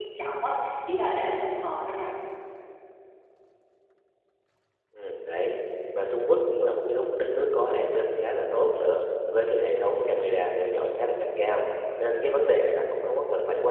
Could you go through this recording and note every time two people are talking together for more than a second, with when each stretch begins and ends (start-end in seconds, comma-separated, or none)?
none